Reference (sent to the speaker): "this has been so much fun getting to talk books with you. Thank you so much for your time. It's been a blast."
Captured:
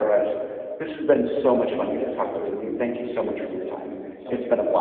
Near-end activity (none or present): present